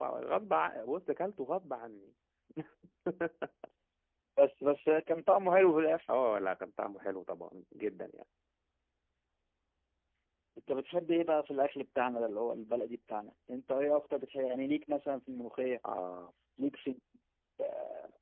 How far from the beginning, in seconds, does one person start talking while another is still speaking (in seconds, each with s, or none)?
none